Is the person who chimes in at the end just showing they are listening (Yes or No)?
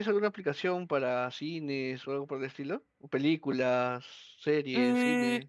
No